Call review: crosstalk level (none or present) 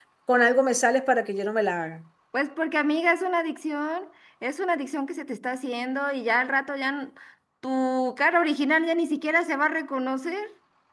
none